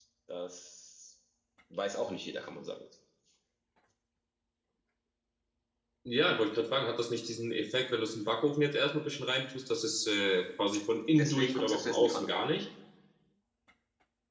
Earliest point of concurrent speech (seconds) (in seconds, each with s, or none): 11.1 s